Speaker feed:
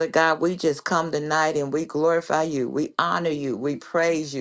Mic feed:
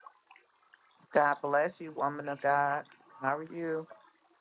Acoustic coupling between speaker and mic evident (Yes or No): No